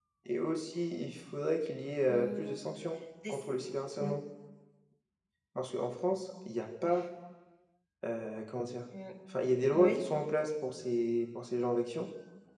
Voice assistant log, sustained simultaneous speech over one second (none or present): none